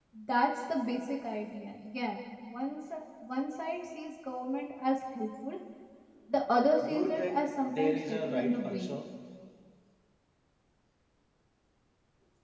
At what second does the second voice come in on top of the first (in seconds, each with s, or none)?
6.8 s